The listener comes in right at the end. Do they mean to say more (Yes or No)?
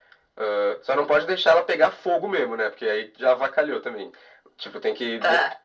No